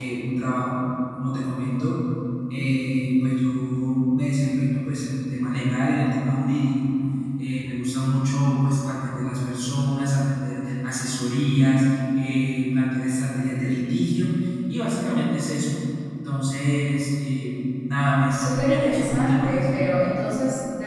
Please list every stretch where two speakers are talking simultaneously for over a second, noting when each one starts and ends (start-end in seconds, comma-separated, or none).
18.3-19.8